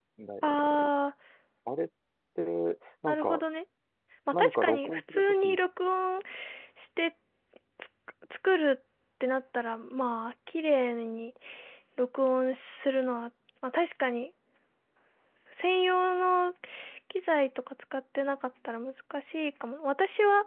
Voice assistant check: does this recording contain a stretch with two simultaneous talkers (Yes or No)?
Yes